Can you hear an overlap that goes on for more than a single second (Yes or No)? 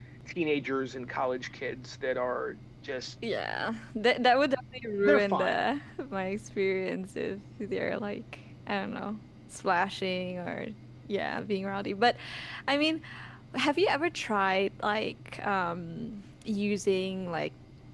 No